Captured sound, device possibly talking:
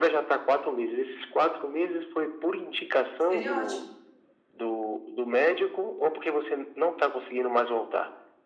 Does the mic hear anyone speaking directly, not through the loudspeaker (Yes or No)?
Yes